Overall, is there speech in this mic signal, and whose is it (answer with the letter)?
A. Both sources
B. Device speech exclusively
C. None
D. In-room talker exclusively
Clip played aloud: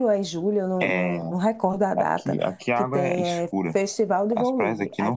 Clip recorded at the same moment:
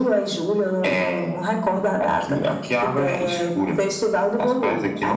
B